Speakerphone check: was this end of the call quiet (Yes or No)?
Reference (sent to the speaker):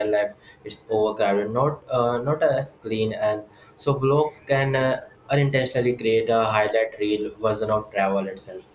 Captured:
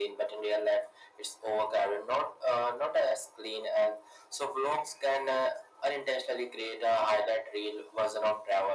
Yes